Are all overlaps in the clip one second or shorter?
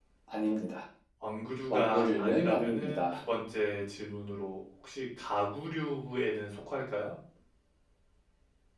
No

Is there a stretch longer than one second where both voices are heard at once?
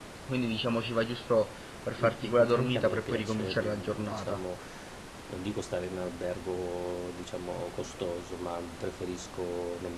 Yes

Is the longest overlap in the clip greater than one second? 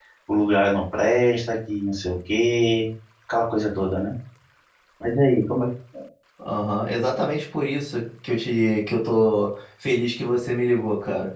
No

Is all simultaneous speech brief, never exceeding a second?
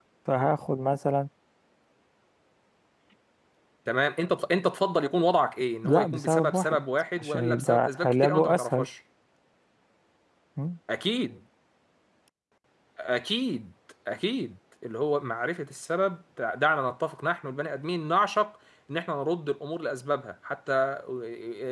No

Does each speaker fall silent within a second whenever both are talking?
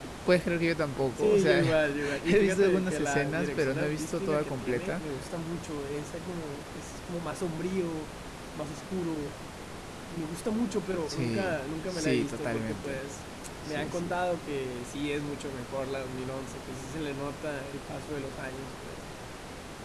No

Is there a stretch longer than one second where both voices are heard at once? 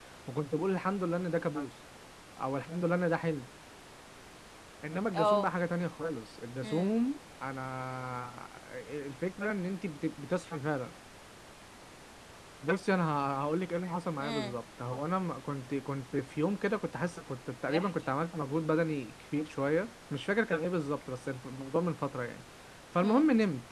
No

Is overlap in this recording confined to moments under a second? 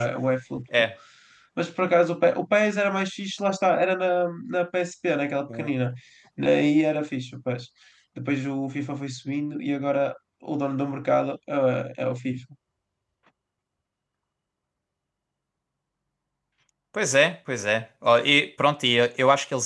Yes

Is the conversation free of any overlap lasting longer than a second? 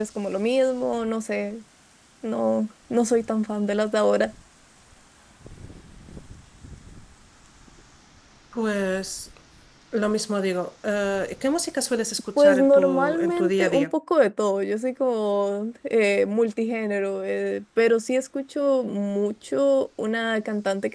No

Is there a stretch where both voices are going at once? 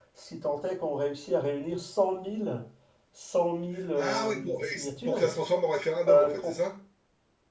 Yes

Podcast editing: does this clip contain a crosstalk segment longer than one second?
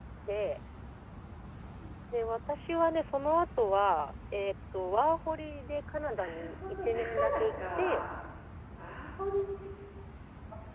Yes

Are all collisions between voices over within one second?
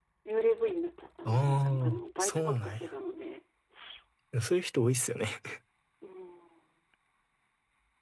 No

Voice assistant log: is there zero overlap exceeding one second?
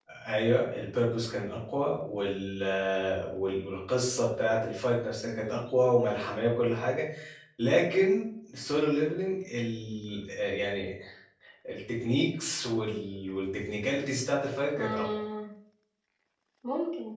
Yes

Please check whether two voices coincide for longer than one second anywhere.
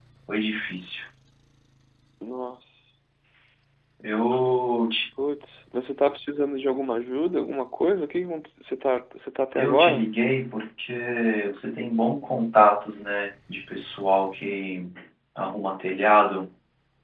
No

